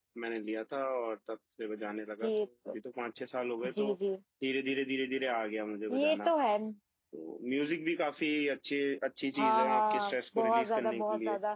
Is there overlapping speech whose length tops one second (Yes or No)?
Yes